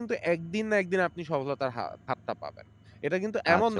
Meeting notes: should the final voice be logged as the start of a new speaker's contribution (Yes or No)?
No